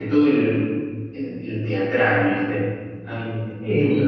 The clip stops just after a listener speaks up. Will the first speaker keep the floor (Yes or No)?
Yes